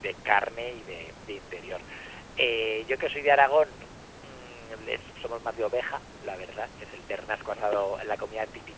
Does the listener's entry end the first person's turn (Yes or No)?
No